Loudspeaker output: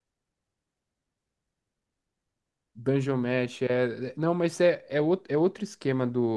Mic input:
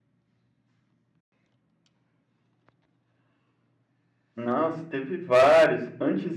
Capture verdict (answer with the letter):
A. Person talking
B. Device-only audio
A